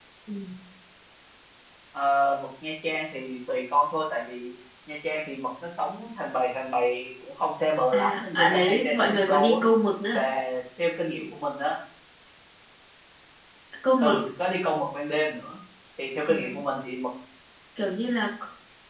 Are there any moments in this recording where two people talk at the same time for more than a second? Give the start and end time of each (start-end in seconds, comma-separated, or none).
7.9-9.6